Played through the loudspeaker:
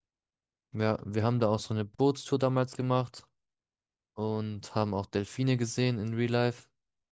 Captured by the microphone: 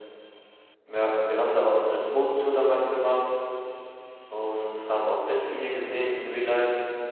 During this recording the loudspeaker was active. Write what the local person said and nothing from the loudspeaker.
none

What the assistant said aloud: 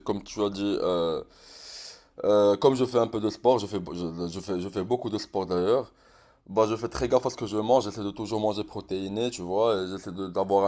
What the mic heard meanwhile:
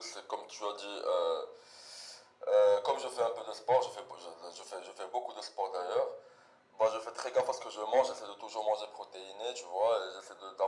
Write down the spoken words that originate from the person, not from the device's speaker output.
none

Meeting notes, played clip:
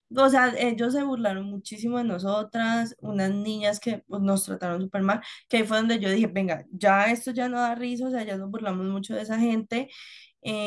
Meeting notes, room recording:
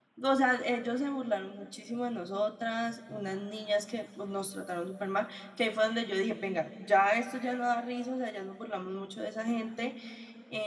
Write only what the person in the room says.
none

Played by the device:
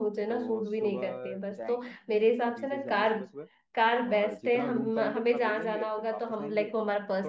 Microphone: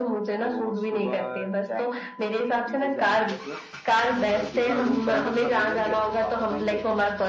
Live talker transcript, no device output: none

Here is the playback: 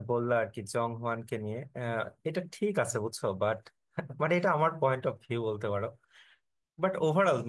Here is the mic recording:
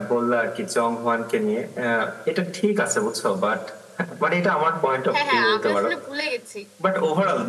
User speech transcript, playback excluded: হ্যাঁ হ্যাঁ আমি আসলে ভুলে গেছি

